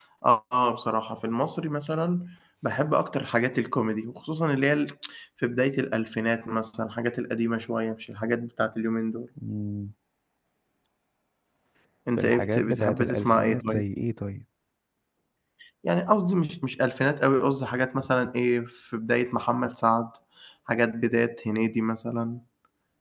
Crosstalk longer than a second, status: present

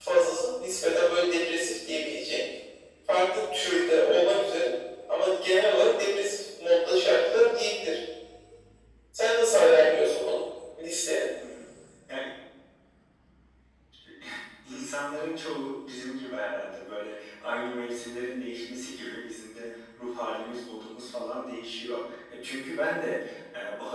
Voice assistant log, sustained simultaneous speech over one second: none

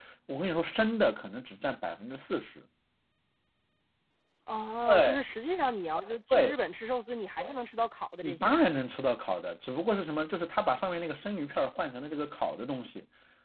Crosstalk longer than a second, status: none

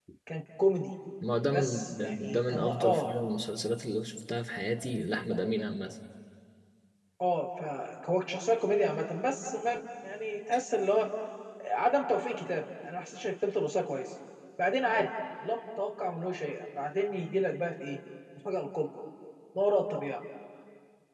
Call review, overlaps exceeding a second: present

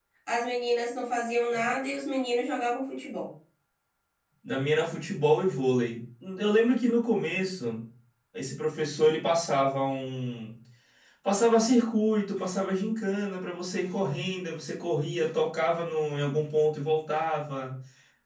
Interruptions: none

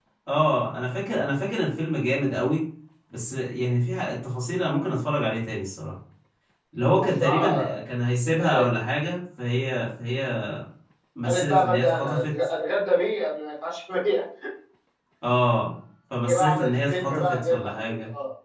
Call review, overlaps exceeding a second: present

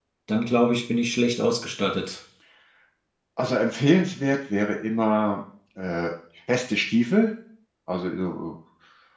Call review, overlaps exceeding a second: none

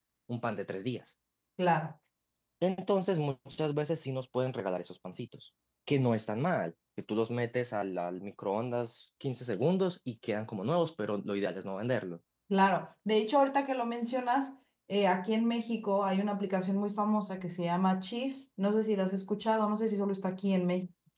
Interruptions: none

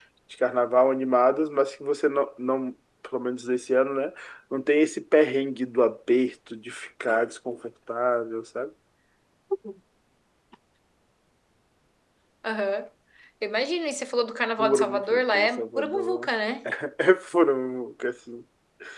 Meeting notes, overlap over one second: present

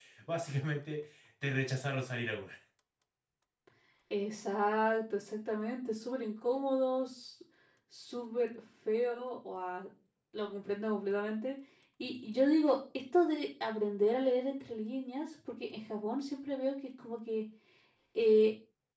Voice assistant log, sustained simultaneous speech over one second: none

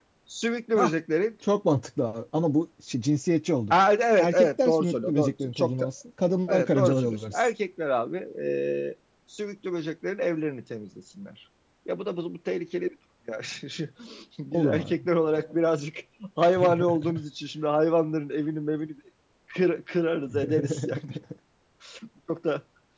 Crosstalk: present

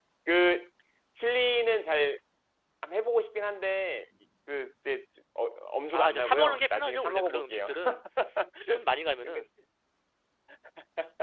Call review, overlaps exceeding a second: present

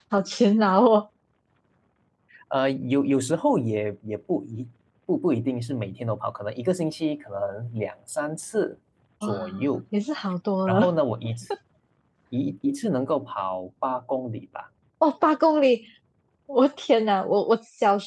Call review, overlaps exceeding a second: none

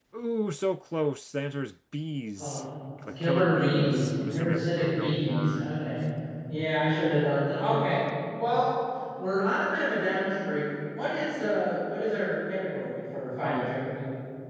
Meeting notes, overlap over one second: present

